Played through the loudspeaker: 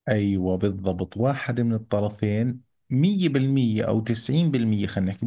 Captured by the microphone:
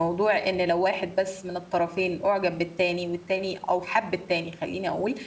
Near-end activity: present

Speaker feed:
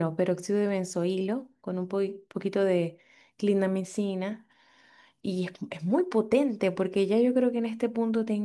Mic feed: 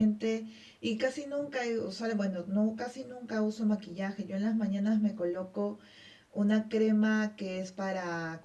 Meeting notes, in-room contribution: present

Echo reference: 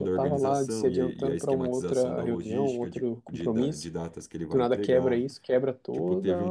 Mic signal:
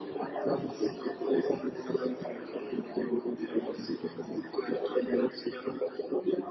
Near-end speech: none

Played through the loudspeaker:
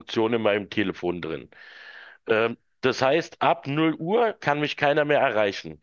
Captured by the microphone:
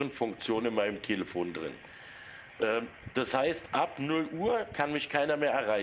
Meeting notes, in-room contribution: none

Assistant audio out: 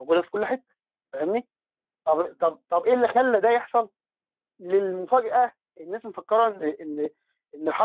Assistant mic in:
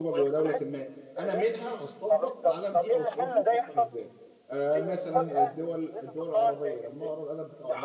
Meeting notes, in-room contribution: present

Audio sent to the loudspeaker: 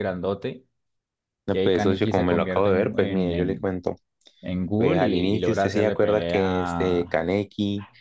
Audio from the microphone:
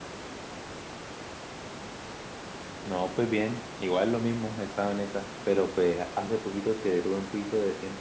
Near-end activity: present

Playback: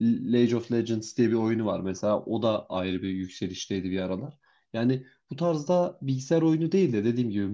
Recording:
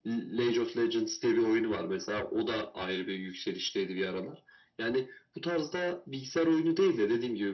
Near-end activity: none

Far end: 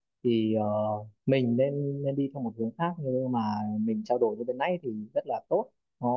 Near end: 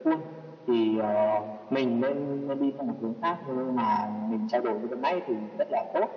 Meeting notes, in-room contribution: none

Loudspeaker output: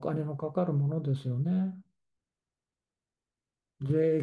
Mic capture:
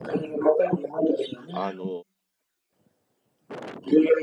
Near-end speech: present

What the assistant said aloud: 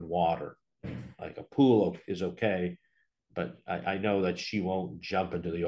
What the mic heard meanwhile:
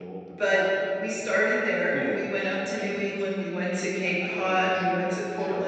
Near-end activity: present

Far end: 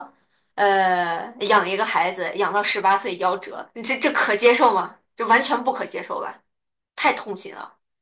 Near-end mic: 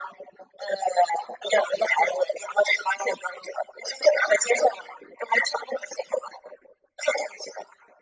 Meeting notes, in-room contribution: none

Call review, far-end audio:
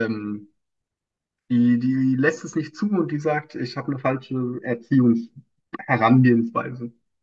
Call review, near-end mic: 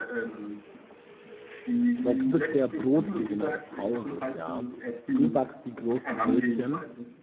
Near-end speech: present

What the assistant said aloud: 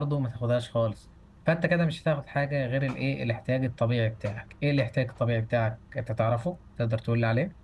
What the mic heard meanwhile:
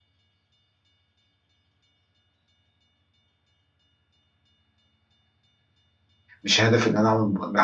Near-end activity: present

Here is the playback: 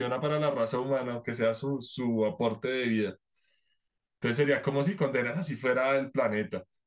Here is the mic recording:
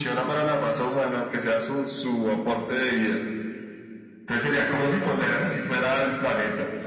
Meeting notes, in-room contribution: present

